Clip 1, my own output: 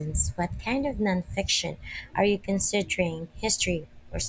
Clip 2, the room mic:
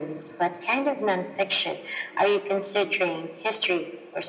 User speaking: No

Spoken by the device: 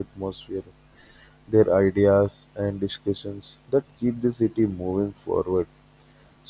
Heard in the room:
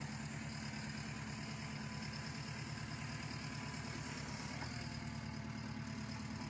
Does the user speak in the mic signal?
No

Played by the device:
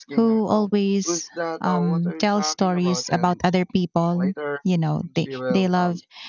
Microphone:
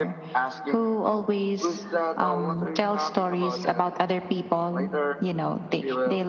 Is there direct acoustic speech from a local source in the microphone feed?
No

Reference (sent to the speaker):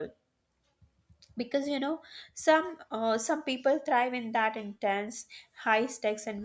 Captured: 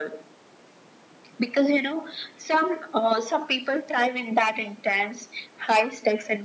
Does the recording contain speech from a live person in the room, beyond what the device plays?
No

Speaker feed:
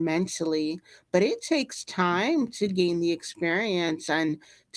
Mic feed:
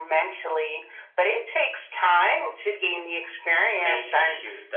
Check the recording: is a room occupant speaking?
Yes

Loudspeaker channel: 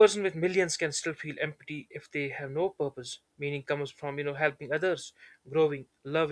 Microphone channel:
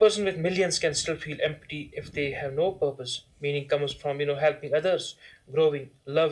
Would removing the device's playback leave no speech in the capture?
Yes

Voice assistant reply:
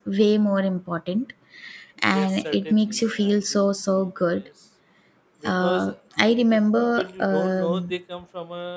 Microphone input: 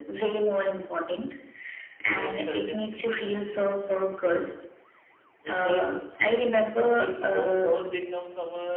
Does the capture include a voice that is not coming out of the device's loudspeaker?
No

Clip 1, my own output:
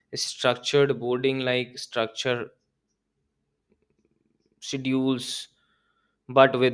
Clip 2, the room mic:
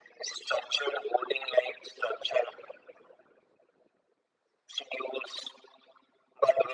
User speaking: No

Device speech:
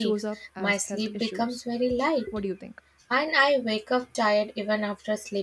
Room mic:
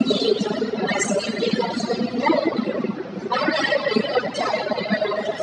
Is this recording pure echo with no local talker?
Yes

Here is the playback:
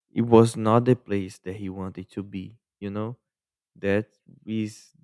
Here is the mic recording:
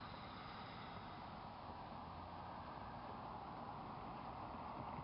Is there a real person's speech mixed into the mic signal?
No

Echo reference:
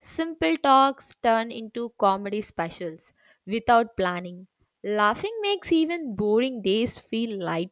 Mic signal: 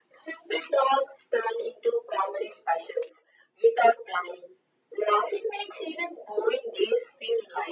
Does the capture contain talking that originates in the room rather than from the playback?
No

